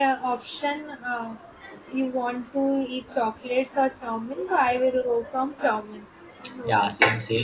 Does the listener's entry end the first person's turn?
Yes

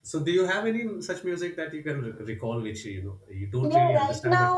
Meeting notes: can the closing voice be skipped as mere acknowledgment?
No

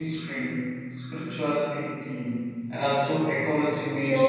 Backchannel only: No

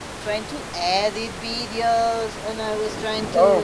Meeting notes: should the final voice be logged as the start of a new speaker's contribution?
No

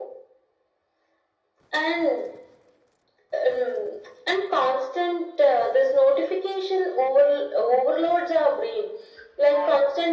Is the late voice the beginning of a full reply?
No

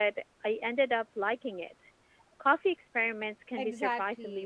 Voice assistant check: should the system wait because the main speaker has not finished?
No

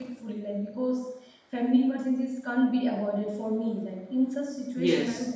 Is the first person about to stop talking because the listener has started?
No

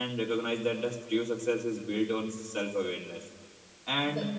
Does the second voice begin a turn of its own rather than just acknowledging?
No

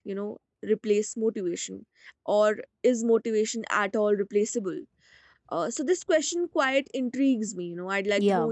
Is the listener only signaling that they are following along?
No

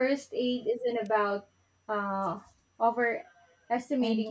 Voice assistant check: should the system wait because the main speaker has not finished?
Yes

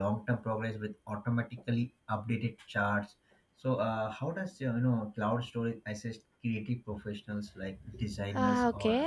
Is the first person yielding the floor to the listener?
Yes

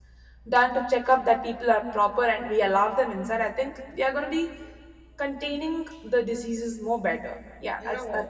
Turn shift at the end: Yes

